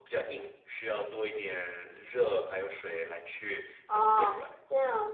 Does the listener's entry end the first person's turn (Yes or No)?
Yes